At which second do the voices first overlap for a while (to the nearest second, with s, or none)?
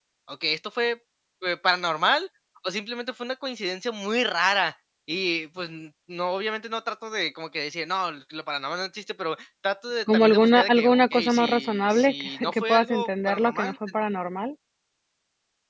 10 s